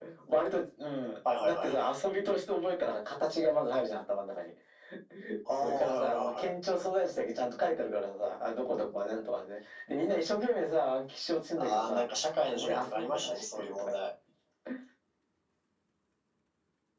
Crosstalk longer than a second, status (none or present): present